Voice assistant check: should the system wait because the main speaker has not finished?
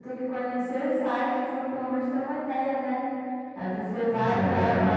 Yes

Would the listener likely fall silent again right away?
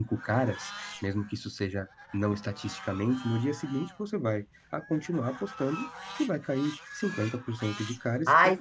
No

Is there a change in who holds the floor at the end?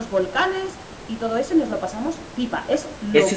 Yes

